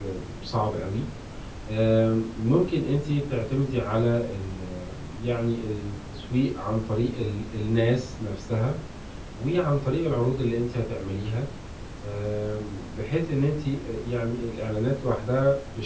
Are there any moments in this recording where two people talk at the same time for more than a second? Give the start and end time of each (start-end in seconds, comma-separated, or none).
none